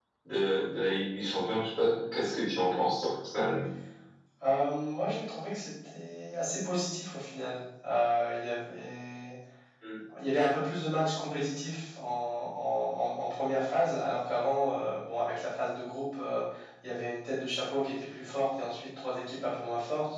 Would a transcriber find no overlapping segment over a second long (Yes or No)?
Yes